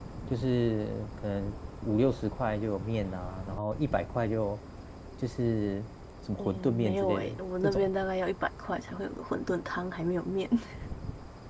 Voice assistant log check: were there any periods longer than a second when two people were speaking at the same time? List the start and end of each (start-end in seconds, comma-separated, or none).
6.4-7.9